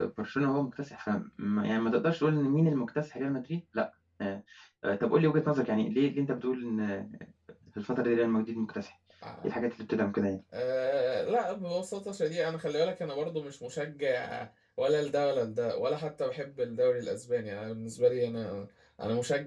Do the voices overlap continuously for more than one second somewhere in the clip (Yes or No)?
No